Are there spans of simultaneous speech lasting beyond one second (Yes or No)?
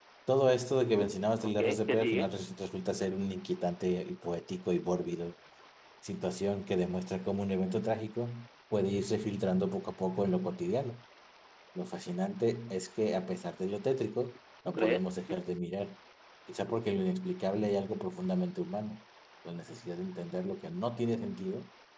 Yes